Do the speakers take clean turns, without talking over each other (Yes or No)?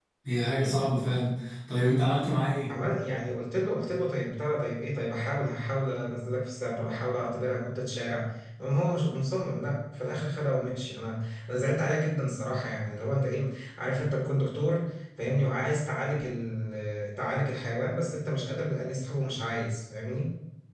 Yes